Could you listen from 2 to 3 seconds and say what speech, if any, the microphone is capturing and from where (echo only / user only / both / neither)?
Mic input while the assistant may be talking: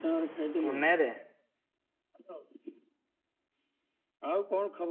echo only